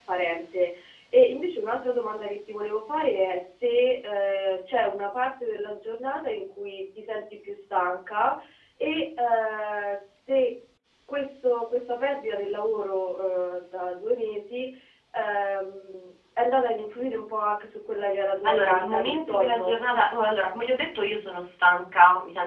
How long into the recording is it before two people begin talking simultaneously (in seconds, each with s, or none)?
18.4 s